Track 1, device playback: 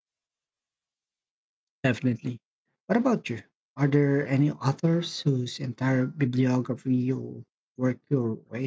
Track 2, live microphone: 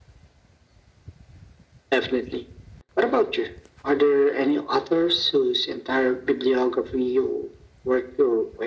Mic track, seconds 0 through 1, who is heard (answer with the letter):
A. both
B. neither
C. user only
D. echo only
B